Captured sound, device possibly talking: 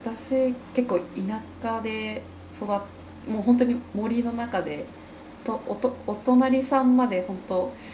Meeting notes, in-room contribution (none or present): none